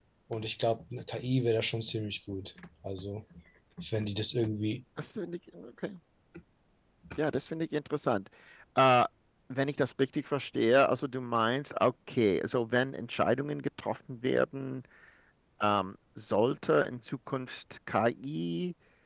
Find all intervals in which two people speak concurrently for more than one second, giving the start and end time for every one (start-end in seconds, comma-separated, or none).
none